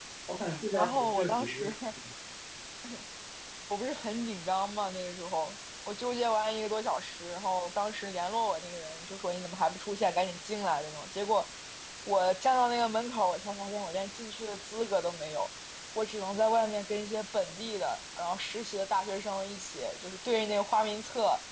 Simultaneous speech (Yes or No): Yes